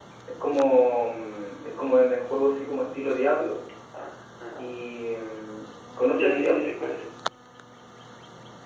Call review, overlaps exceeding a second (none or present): none